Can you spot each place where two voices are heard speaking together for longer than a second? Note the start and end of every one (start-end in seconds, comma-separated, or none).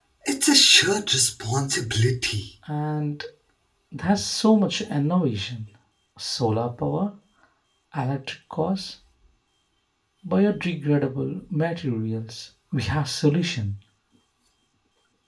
none